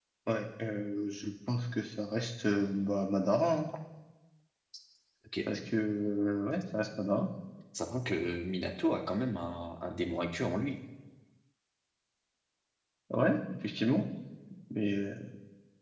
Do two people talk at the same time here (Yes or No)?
No